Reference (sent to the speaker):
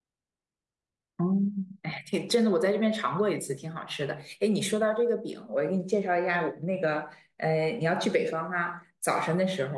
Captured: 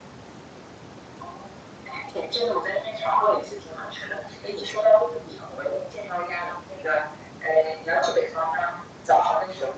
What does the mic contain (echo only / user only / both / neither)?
echo only